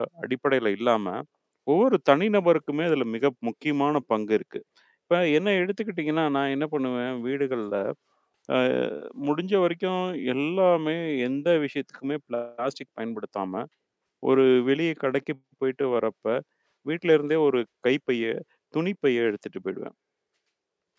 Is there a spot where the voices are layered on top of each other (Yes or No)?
No